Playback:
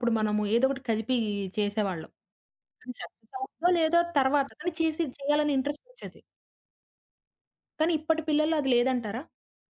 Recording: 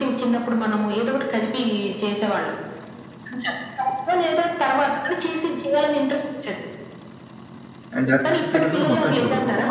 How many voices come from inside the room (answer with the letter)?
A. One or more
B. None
A